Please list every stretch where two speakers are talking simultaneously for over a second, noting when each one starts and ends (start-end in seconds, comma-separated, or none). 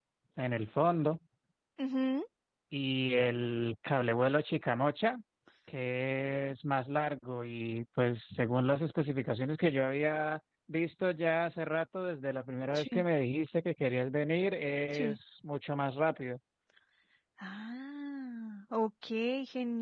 none